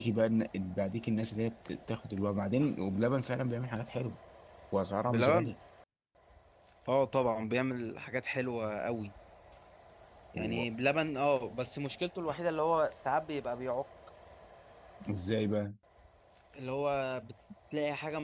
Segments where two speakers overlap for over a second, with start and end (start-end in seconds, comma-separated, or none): none